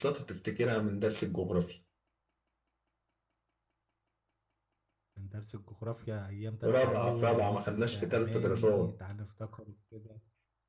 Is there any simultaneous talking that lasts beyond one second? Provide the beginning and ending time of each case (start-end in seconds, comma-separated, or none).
6.6-8.9